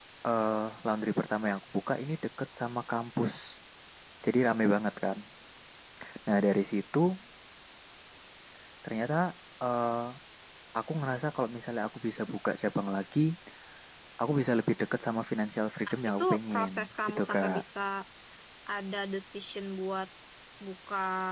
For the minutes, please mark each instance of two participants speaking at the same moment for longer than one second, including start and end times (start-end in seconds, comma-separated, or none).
15.9-17.6